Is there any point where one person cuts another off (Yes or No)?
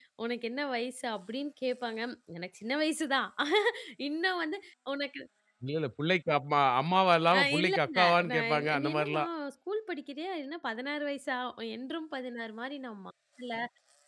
Yes